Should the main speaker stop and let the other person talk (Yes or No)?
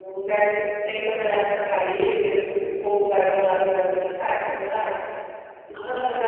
Yes